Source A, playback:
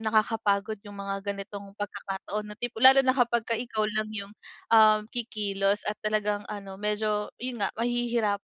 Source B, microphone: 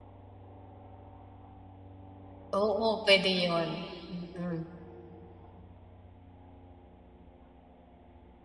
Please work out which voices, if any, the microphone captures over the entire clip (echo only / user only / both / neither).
user only